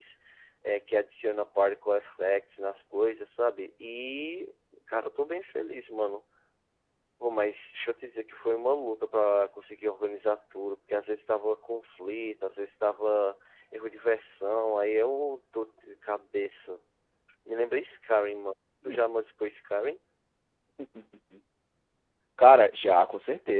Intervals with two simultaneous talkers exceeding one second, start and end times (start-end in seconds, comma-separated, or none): none